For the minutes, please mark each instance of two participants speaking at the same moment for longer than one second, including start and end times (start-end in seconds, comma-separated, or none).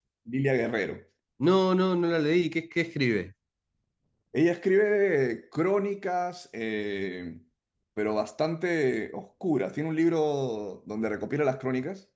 none